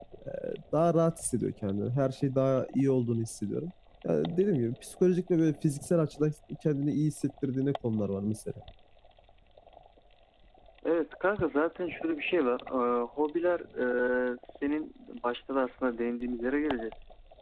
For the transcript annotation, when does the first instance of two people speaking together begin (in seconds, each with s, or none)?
none